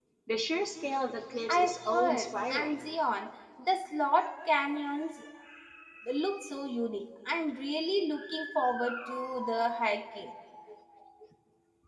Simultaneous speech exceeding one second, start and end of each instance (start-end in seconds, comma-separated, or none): 1.5-2.9